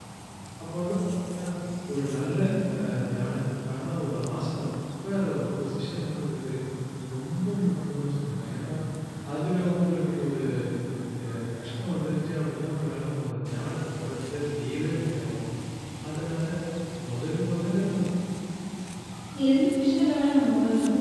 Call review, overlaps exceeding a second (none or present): none